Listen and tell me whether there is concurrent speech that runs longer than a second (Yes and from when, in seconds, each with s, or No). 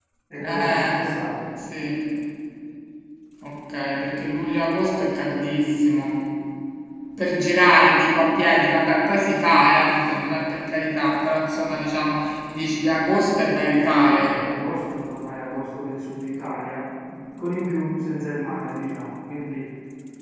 No